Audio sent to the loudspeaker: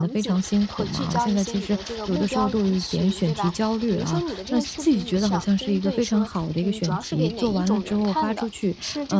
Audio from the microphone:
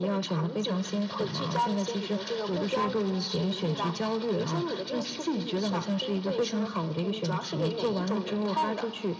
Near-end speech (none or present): present